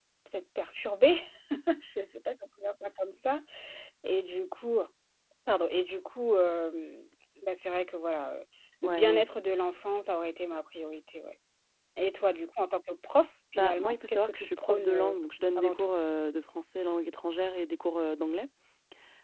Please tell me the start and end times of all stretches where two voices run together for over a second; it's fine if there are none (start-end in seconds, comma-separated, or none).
13.6-15.2